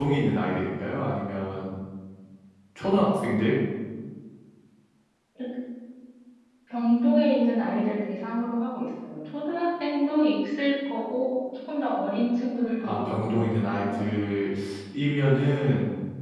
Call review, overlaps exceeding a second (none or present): present